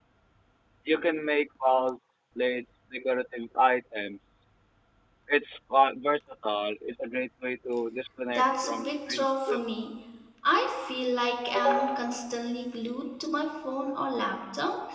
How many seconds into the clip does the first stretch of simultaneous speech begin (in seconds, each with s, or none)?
8.3 s